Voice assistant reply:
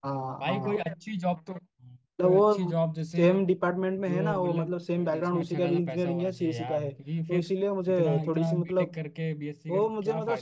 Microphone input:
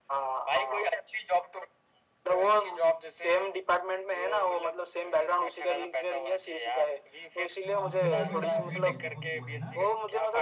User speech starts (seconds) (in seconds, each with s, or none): 7.7 s